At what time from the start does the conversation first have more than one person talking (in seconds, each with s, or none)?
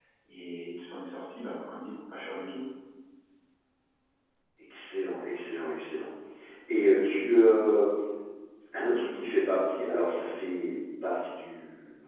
none